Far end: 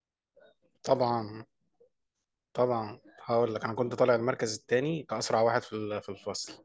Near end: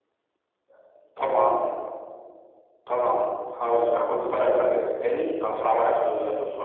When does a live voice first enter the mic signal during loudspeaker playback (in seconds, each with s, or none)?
none